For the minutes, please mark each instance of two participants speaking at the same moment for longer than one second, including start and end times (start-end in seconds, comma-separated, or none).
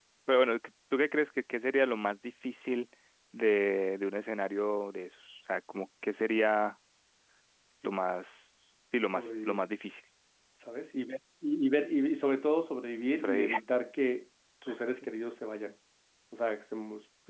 none